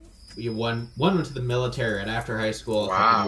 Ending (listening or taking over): listening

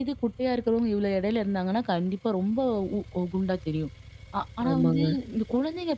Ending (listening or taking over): listening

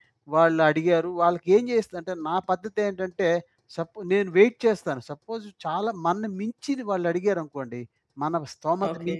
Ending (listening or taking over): listening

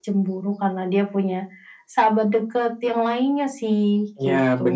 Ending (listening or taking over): taking over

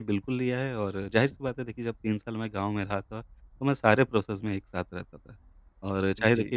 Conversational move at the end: listening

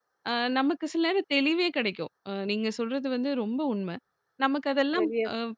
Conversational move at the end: listening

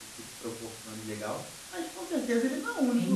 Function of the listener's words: taking over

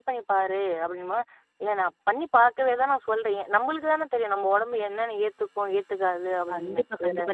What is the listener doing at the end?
taking over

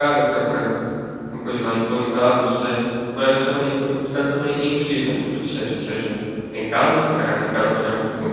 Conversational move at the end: listening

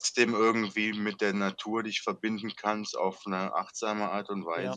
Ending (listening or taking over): taking over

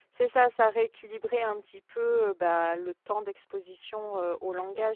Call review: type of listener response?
listening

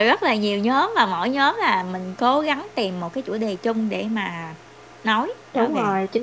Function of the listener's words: taking over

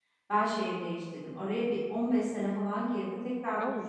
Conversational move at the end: listening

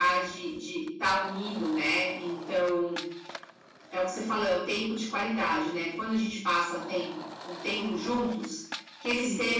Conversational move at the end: listening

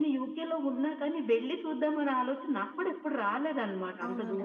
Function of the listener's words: taking over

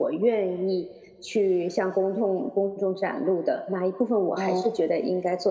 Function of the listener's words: listening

